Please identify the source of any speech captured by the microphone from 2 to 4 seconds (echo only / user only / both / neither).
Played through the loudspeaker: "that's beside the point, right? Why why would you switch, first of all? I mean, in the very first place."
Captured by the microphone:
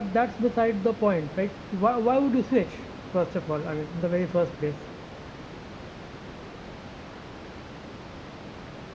echo only